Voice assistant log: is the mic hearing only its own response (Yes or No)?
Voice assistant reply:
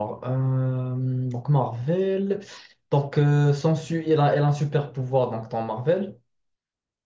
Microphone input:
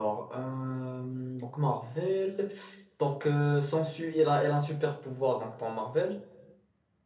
Yes